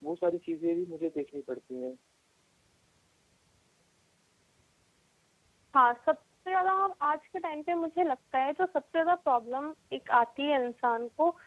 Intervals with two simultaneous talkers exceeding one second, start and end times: none

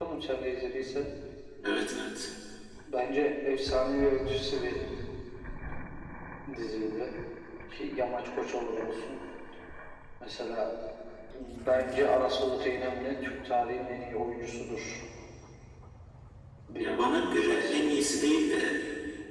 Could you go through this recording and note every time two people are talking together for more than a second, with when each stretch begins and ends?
16.8-18.3

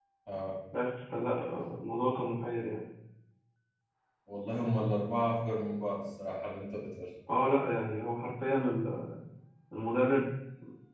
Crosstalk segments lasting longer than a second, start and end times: none

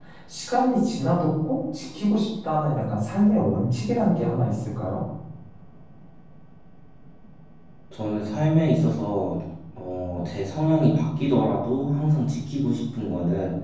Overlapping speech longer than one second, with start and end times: none

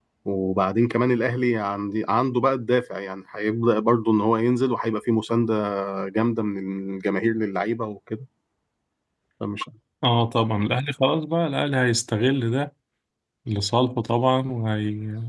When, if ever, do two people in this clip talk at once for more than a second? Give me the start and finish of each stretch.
none

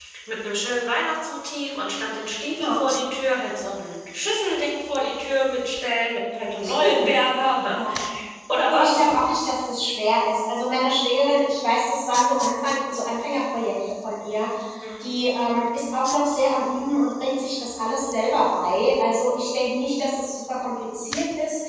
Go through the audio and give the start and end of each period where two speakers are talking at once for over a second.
none

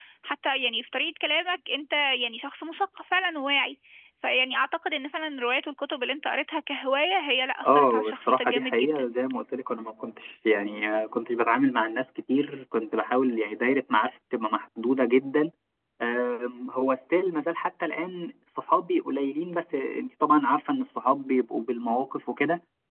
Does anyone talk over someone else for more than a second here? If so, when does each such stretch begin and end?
7.6-9.1

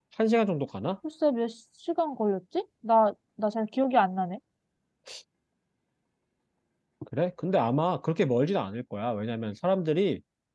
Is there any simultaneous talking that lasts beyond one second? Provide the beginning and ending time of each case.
none

